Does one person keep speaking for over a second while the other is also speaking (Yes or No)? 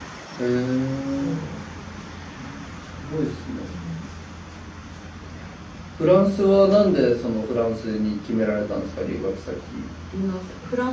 No